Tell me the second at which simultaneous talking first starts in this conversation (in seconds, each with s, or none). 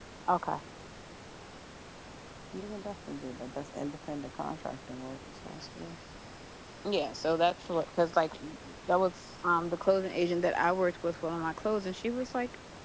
none